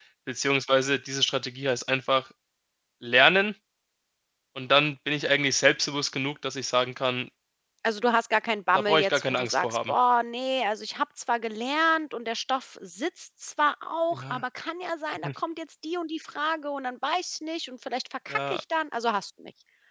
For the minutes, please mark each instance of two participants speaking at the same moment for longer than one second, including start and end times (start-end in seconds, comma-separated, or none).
8.7-9.9